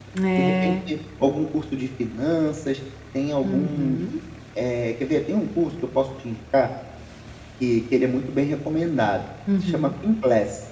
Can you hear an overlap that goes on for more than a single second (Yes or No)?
No